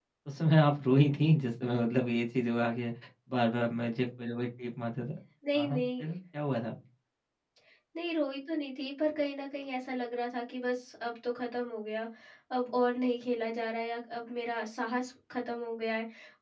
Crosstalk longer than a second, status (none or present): none